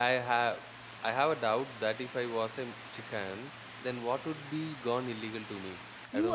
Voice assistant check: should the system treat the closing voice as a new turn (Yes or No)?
Yes